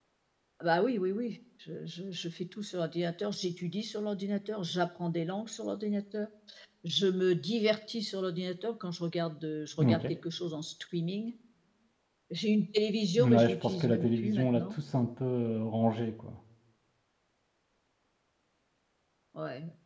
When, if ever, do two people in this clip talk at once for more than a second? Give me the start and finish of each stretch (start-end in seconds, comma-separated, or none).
13.2-14.8